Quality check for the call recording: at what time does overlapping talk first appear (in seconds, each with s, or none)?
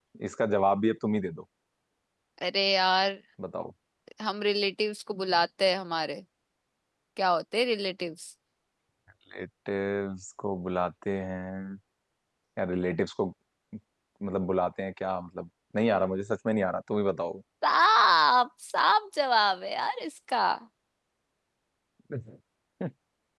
none